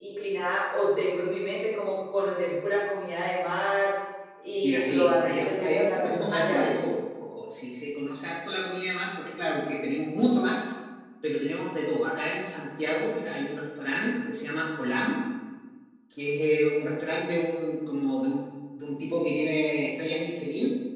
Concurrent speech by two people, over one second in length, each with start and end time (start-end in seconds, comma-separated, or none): 4.6-6.7